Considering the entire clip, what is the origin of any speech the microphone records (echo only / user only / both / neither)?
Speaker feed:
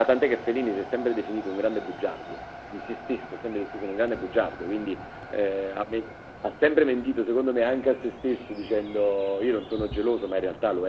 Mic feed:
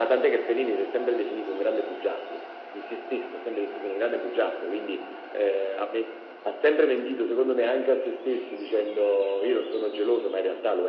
echo only